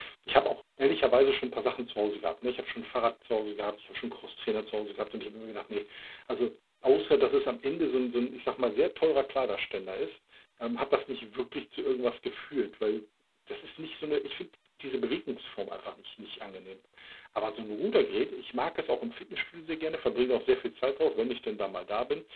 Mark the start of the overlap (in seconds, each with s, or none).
none